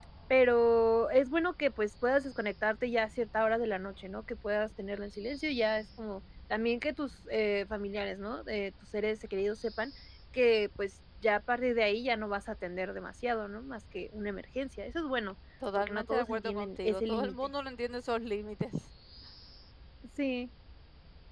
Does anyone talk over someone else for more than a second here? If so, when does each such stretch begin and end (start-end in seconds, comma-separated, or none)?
15.8-17.4